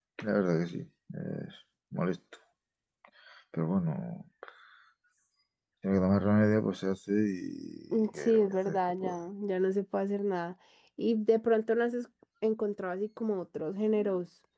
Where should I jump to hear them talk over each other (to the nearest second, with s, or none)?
8 s